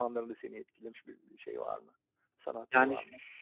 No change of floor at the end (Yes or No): No